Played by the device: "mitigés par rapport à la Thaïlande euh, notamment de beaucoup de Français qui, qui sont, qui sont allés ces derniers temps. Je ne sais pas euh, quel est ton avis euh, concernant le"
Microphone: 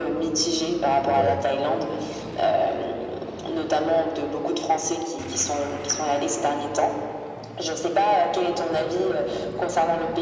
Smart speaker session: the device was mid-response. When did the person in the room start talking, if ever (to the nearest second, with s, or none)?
1 s